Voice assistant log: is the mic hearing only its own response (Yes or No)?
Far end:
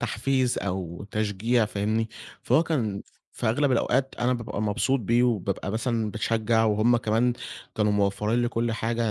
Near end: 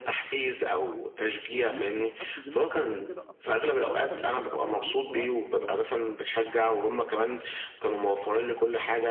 No